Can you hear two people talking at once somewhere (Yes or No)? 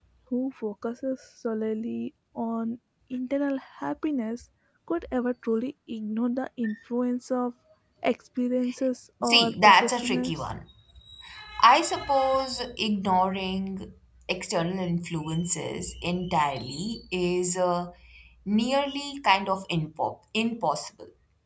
Yes